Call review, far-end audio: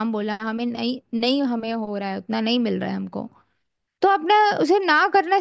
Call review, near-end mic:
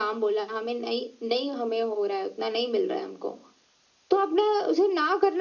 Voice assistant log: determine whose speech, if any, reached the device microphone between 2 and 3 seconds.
echo only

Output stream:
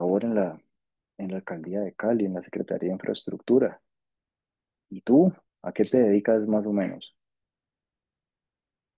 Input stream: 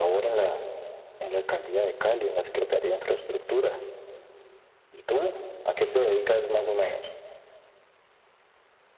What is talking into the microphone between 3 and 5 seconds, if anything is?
echo only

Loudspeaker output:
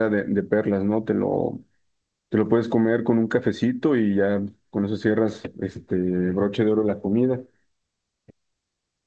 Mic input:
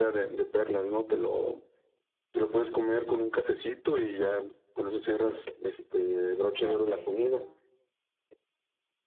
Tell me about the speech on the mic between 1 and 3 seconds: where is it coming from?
echo only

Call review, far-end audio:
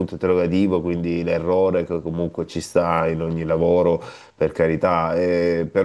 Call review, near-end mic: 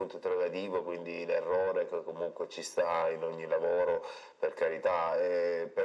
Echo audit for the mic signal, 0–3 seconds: echo only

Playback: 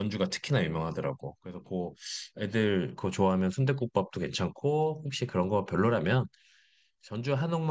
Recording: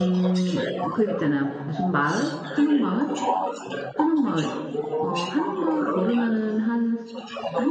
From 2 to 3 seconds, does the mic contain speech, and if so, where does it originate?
both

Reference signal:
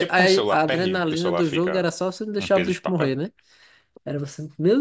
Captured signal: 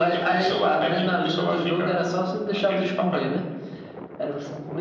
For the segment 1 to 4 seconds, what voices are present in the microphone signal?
echo only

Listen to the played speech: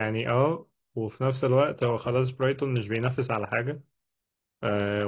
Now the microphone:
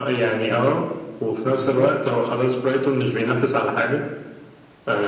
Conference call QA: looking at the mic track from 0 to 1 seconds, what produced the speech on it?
echo only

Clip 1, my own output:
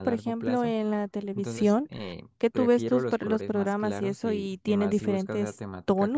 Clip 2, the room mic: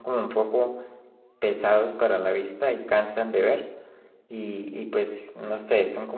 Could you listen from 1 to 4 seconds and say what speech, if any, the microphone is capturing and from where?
user only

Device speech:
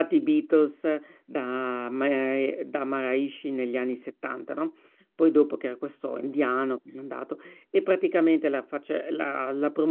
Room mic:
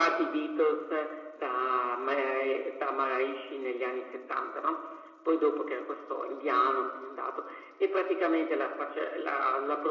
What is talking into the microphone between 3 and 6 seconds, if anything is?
echo only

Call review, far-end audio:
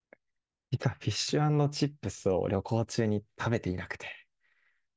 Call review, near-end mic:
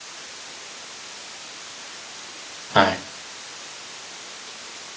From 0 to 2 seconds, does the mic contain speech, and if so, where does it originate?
neither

